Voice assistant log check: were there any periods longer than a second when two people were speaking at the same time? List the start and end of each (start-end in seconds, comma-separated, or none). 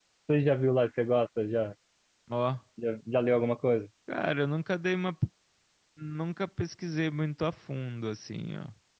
none